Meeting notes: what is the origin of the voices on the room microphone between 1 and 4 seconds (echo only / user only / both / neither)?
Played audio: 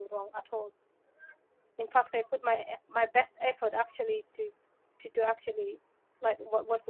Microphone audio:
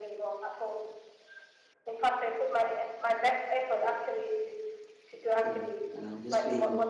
echo only